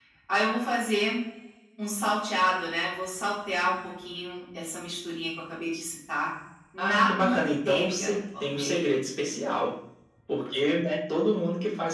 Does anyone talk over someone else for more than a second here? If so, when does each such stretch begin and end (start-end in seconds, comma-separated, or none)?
6.8-8.9